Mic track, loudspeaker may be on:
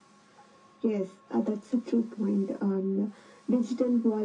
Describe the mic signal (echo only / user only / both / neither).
echo only